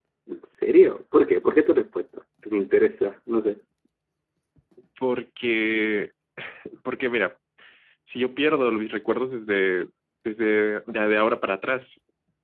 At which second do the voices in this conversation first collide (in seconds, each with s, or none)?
none